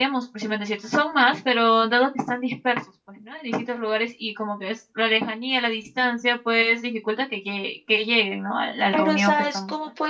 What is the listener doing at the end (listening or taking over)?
taking over